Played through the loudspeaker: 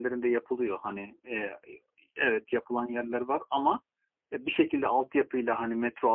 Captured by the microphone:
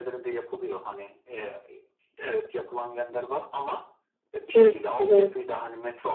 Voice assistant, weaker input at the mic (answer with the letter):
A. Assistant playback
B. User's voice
A